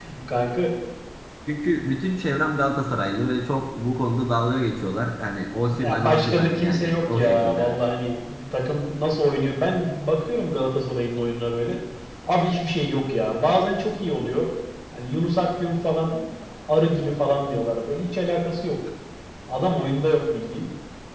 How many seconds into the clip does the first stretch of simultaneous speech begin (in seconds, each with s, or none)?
5.7 s